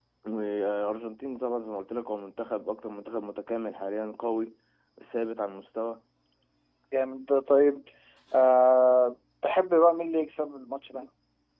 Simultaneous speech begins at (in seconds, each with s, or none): none